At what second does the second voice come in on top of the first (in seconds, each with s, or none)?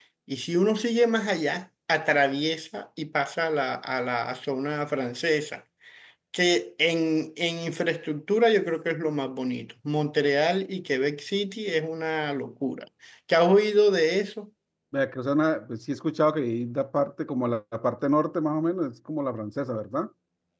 none